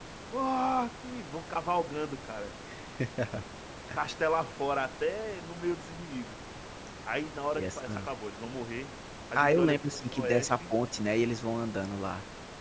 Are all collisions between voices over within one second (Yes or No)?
No